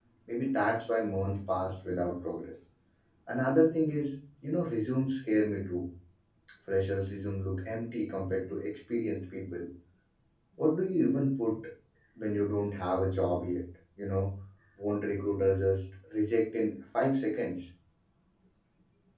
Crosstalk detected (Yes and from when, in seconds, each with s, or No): No